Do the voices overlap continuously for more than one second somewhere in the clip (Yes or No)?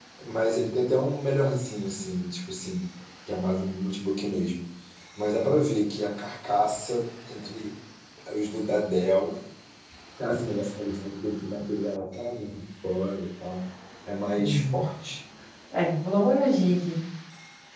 No